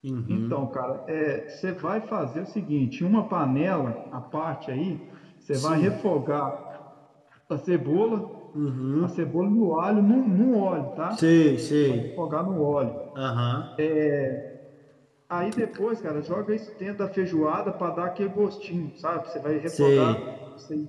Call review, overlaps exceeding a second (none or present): none